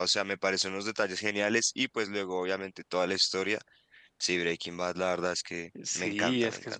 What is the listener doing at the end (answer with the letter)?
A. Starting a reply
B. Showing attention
A